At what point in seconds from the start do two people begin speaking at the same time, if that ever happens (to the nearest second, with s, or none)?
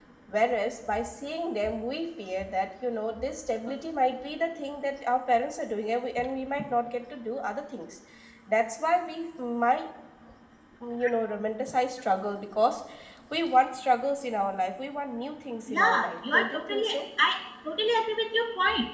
16 s